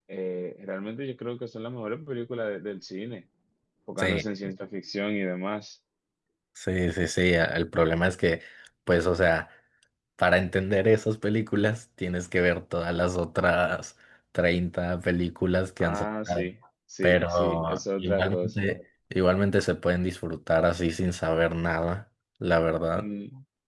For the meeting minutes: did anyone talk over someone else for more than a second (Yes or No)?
Yes